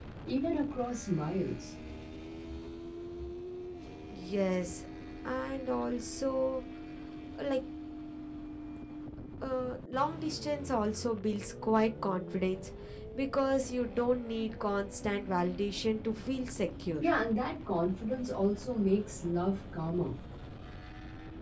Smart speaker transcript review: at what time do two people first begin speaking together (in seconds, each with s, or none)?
none